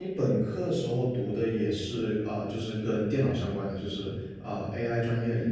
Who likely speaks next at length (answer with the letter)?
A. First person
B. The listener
B